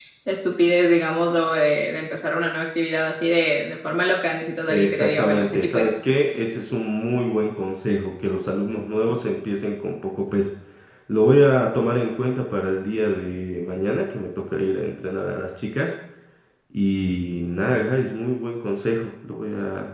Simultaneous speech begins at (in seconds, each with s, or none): 4.7 s